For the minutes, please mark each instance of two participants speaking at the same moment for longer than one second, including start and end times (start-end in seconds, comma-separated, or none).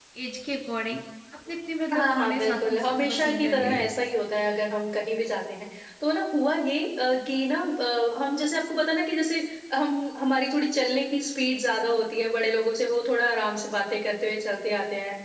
1.9-3.9